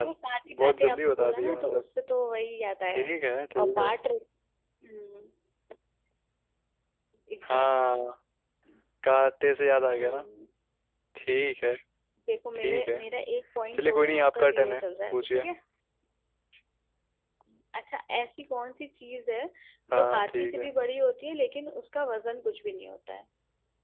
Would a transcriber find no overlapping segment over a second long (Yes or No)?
No